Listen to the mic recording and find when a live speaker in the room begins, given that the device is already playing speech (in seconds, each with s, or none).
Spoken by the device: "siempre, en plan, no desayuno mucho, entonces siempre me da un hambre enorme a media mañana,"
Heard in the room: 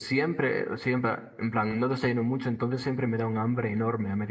none